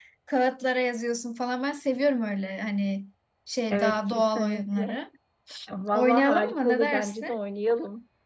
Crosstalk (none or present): present